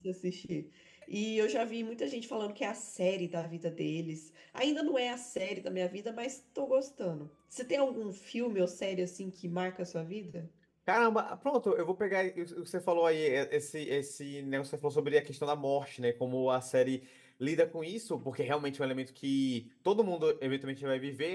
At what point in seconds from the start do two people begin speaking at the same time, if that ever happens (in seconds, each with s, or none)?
none